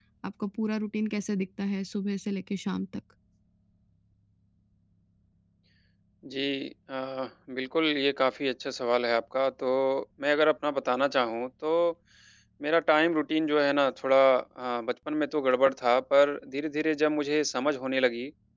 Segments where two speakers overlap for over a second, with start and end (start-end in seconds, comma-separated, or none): none